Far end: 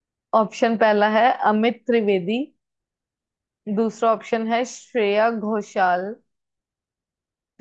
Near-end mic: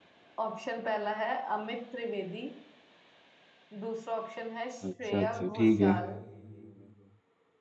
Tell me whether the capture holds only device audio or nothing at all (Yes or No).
No